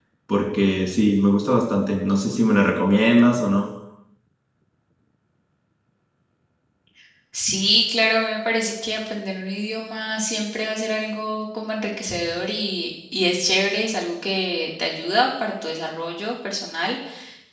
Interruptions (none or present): none